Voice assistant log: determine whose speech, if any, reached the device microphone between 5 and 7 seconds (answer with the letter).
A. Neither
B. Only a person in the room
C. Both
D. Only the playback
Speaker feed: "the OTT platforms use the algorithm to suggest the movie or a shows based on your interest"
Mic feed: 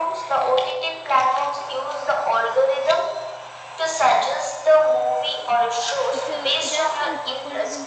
C